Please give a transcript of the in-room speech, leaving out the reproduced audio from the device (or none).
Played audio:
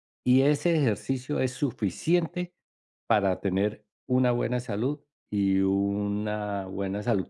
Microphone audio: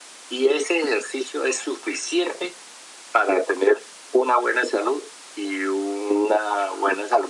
none